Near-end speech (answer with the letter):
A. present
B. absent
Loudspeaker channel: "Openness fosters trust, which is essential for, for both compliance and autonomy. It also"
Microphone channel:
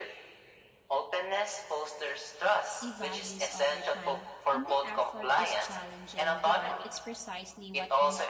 A